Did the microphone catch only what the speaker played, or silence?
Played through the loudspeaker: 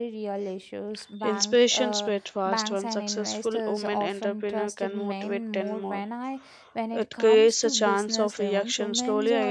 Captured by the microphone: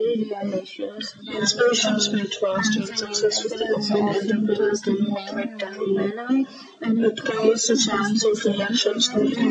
Yes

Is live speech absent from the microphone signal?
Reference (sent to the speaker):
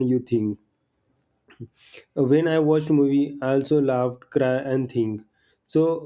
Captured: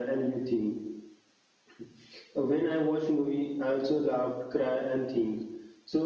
Yes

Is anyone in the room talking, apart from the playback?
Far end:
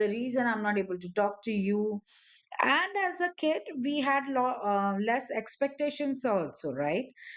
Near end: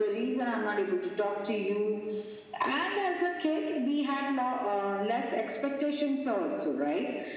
No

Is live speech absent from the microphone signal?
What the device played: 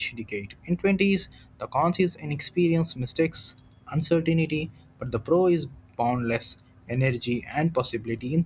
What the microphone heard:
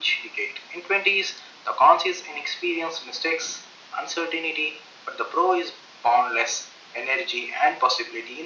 Yes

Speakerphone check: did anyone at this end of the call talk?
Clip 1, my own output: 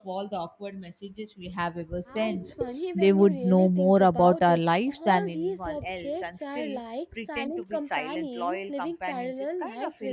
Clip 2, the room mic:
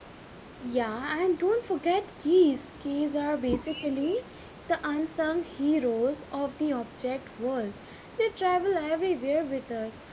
Yes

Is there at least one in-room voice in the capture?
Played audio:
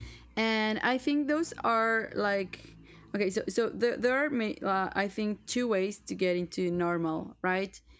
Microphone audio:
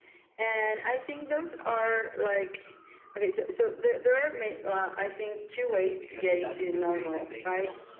Yes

